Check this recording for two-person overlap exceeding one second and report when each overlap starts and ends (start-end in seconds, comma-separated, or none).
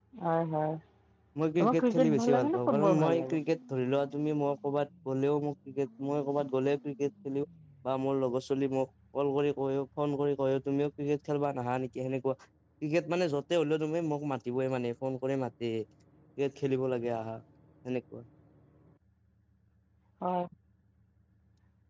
1.6-3.4